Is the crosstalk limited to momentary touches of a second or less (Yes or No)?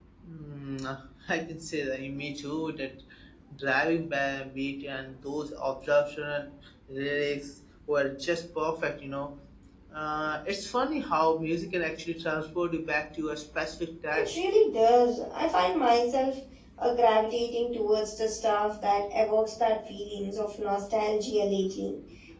Yes